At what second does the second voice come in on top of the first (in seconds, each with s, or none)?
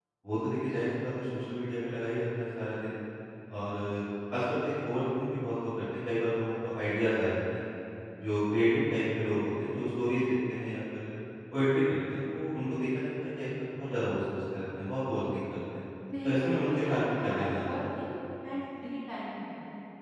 16.2 s